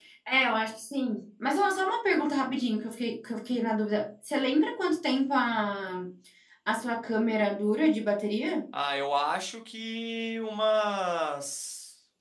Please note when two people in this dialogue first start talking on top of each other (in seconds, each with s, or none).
none